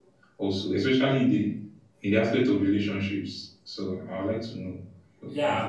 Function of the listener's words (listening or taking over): taking over